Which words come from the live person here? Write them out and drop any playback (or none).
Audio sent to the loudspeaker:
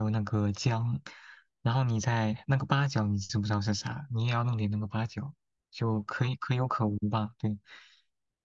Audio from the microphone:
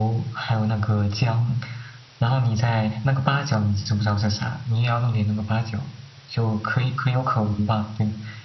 none